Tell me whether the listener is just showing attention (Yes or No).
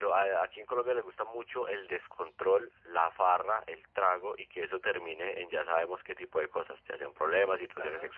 Yes